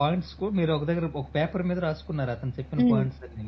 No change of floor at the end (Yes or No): No